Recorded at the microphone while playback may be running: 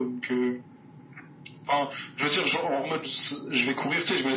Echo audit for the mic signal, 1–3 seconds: echo only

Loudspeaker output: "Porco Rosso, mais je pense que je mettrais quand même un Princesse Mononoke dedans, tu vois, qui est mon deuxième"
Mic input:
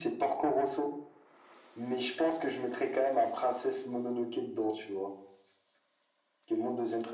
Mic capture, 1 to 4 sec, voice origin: echo only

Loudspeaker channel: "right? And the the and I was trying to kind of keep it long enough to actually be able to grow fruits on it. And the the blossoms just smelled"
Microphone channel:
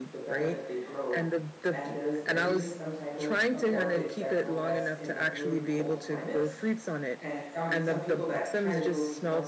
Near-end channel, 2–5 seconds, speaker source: both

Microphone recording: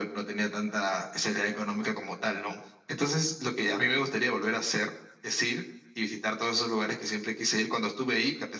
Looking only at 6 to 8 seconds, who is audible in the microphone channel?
echo only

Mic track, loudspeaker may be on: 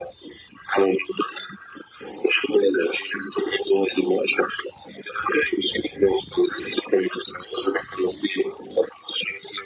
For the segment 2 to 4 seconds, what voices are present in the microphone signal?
echo only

